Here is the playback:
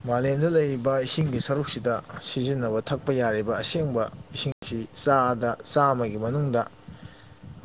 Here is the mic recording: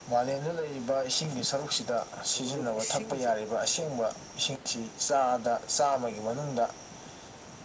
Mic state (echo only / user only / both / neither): both